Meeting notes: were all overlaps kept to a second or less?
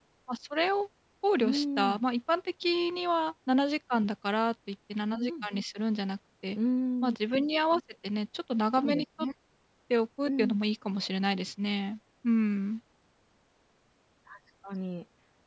Yes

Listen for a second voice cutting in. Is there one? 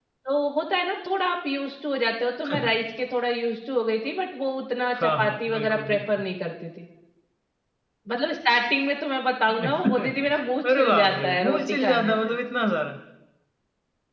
Yes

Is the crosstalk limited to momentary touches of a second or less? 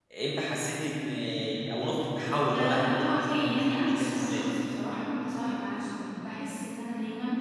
No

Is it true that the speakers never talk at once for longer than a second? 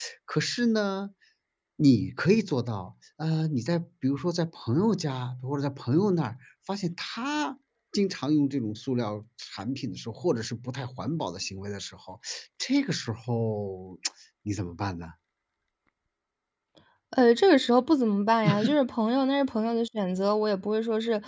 Yes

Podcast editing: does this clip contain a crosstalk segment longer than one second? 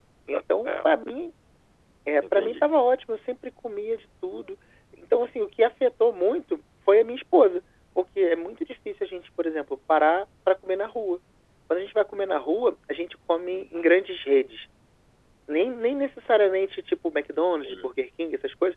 No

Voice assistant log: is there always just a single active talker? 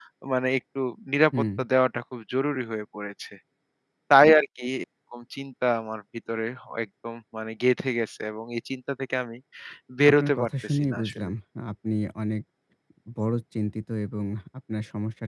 No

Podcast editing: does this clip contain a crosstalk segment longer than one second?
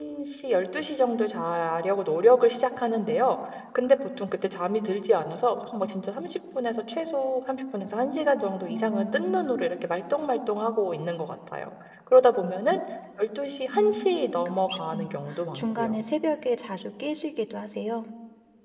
Yes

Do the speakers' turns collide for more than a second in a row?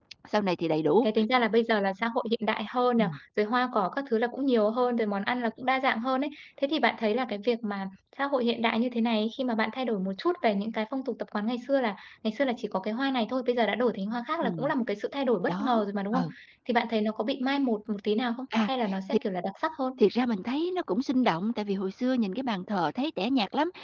No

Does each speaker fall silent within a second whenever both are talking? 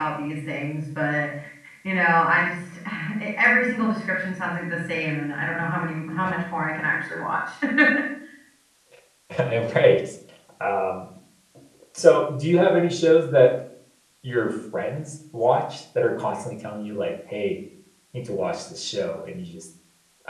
Yes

